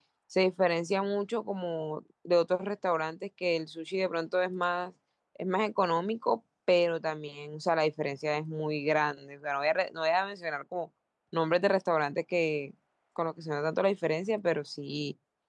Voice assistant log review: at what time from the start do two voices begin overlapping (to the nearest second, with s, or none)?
none